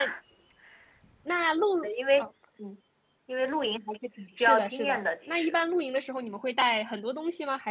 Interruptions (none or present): present